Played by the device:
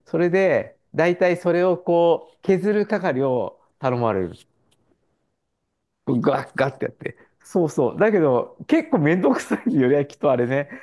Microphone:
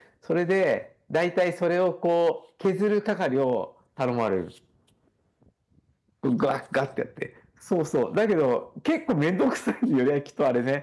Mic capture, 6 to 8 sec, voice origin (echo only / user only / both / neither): echo only